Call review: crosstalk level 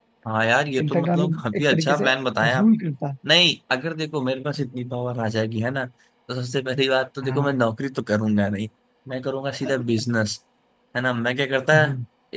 present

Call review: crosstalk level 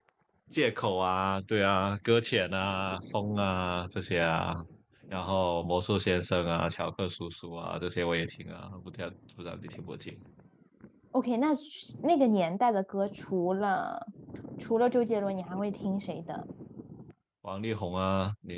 none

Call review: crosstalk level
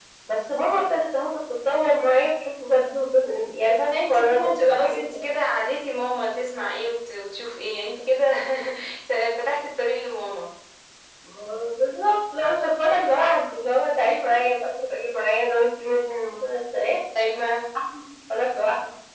present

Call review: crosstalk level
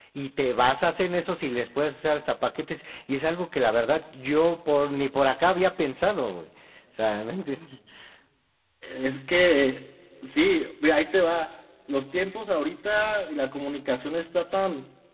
none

